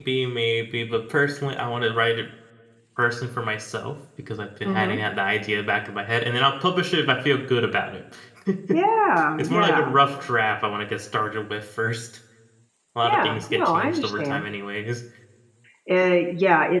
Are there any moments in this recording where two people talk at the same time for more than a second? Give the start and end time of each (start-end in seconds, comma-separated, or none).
13.0-14.4